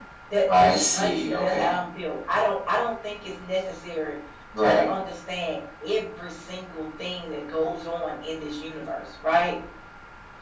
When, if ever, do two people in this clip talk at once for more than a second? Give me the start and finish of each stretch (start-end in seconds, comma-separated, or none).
0.5-1.7